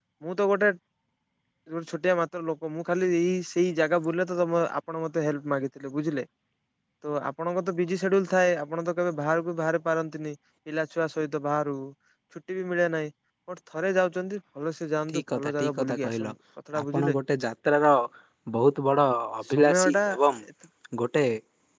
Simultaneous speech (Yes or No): Yes